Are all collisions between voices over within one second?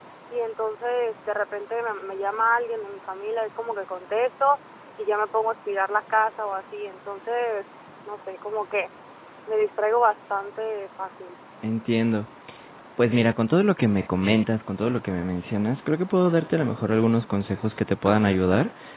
Yes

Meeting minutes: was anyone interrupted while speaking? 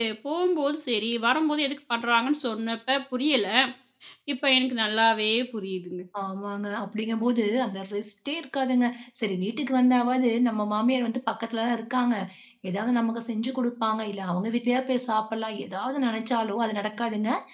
No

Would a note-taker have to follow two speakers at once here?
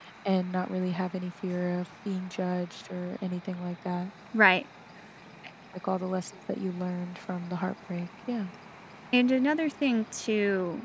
No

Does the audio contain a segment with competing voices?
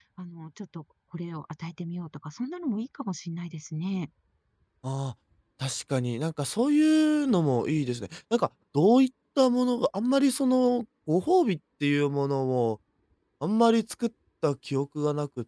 No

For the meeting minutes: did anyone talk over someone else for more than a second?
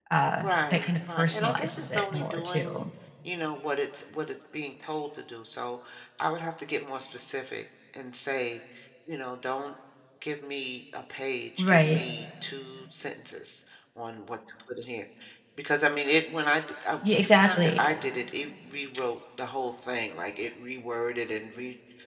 Yes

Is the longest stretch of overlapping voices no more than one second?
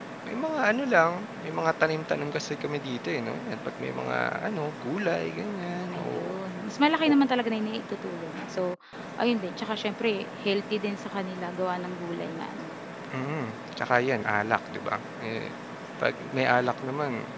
Yes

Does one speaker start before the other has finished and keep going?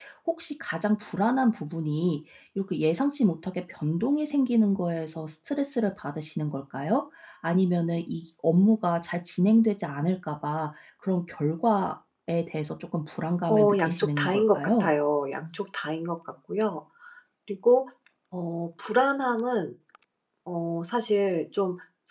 Yes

